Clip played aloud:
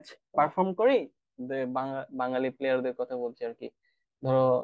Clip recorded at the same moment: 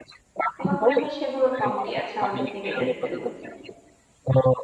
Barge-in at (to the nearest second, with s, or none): 1 s